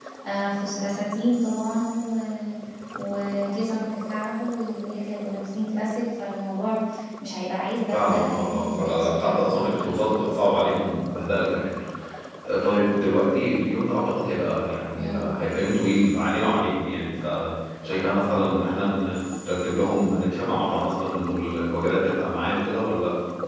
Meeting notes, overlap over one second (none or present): present